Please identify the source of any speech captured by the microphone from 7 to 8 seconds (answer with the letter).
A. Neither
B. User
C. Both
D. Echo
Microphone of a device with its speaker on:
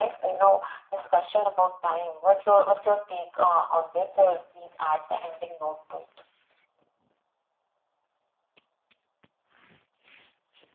A